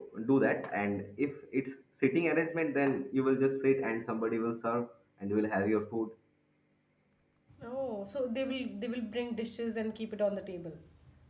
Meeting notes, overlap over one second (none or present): none